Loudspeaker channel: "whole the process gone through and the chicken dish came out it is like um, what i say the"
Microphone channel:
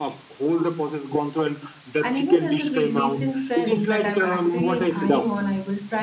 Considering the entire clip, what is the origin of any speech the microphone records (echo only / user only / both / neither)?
both